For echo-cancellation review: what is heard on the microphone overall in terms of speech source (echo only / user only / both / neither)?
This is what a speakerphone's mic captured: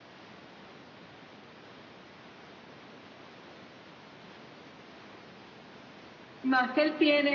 user only